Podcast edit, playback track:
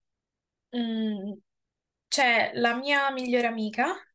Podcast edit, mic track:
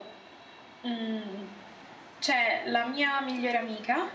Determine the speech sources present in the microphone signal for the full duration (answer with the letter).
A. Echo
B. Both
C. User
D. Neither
A